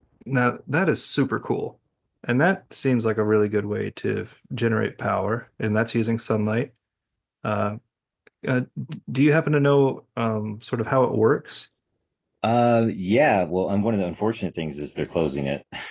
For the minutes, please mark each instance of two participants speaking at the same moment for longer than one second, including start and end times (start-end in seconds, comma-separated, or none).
none